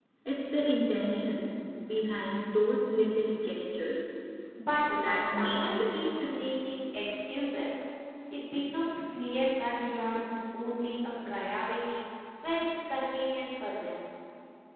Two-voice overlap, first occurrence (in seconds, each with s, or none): 5.0 s